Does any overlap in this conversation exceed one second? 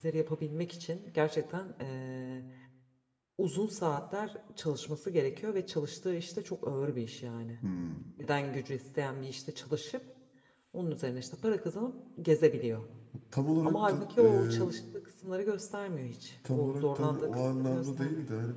Yes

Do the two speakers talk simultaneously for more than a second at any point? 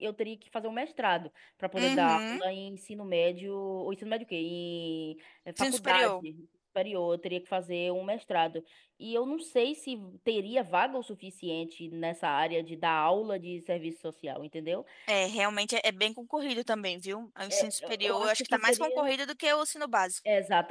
Yes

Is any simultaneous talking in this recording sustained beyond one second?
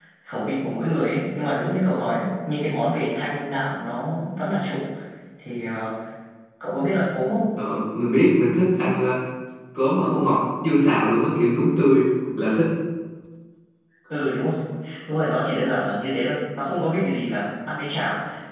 No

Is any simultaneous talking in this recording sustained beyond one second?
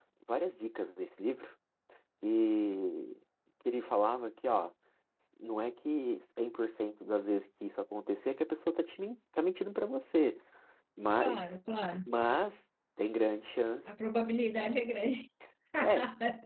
No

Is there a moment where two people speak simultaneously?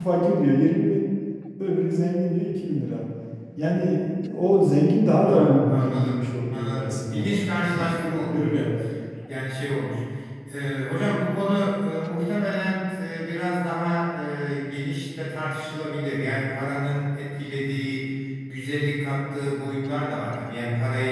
Yes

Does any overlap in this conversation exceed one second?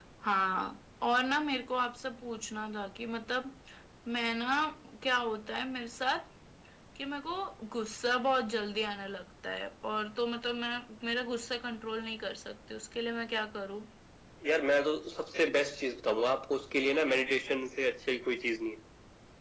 No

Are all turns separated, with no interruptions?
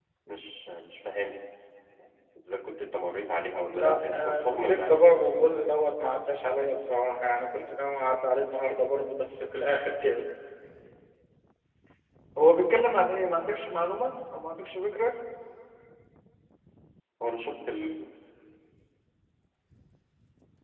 No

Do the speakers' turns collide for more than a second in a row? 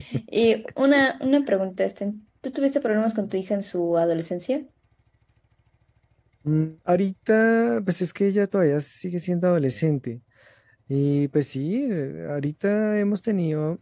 No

